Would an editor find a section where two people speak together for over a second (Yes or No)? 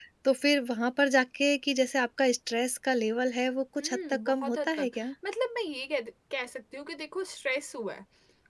Yes